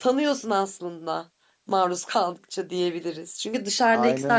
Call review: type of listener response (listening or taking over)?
listening